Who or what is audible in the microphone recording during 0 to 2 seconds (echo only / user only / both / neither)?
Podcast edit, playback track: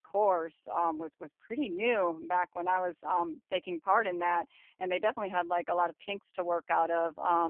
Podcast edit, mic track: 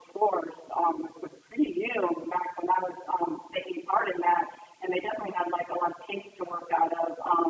echo only